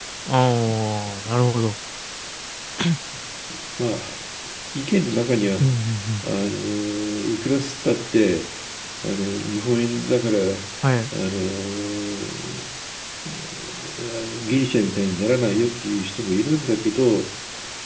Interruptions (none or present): none